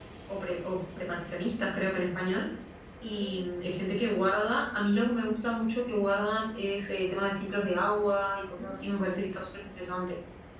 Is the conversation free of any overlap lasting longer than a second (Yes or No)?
No